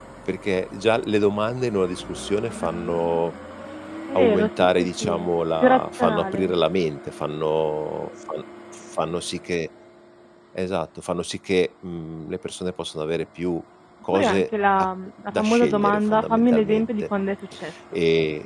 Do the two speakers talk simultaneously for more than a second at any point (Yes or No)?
Yes